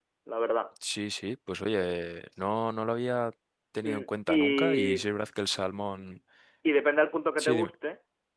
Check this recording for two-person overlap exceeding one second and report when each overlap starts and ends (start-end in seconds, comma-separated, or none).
3.8-5.1